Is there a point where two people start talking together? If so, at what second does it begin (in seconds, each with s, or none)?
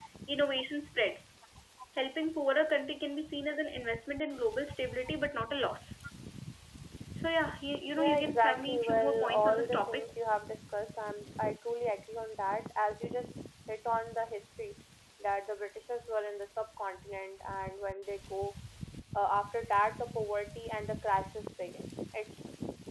8.0 s